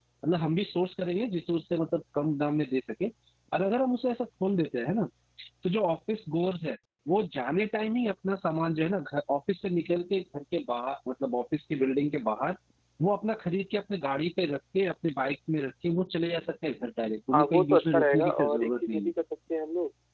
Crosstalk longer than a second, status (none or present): present